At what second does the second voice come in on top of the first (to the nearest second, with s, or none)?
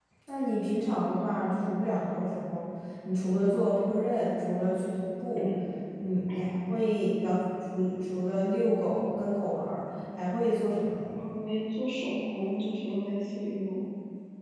none